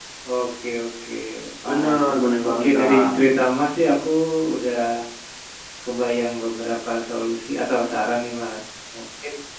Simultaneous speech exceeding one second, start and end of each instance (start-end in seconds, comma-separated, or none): 1.6-3.2